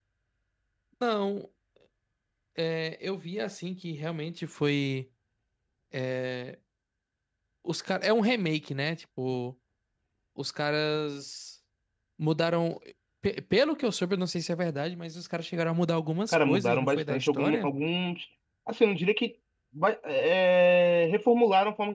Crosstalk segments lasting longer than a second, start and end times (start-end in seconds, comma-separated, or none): 16.3-17.7